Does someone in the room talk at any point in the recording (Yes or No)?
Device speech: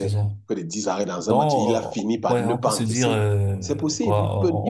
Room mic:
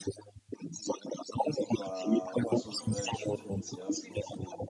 Yes